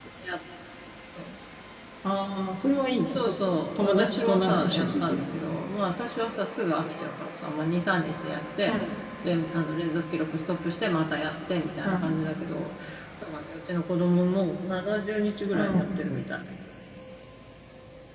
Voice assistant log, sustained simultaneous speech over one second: present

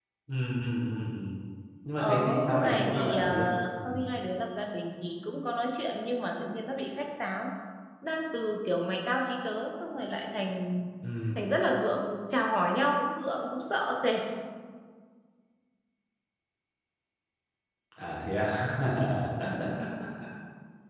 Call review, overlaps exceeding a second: present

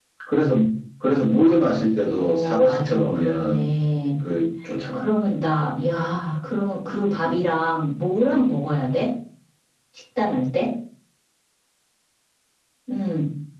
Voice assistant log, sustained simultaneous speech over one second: present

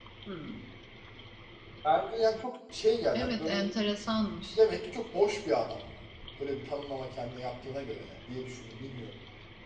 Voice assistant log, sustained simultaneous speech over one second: none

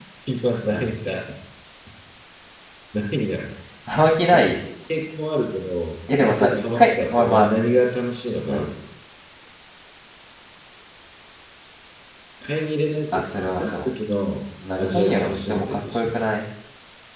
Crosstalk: present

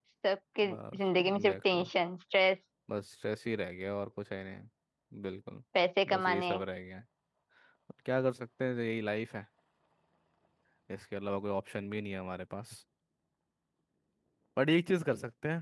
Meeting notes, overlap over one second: present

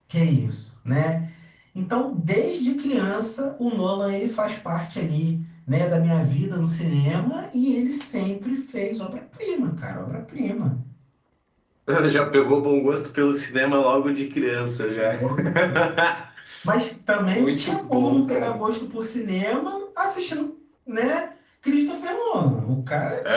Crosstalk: present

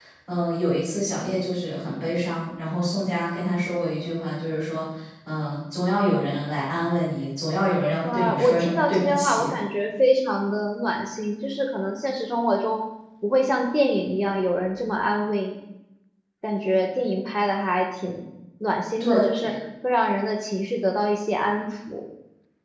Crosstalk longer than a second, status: present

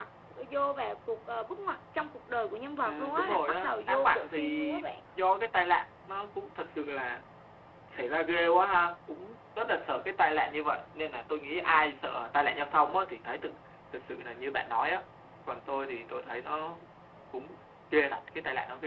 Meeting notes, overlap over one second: present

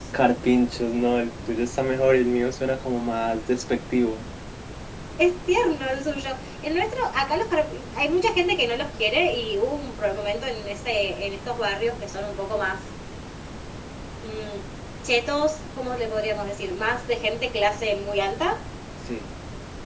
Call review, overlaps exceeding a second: none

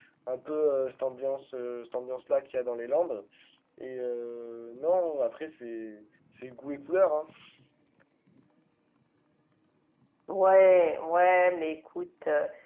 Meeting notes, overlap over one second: none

